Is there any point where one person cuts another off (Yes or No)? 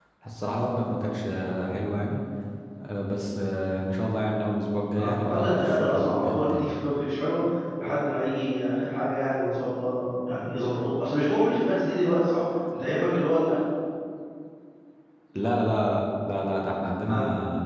Yes